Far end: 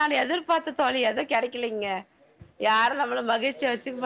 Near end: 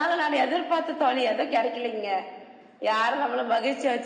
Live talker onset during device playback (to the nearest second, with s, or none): none